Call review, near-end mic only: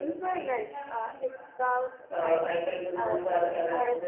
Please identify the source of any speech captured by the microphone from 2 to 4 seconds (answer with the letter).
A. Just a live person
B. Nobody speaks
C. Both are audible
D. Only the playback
C